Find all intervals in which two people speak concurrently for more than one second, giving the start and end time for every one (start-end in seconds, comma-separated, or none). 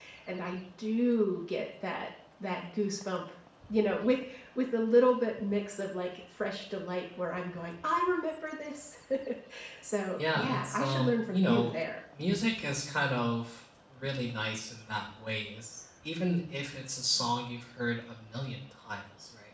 10.2-11.7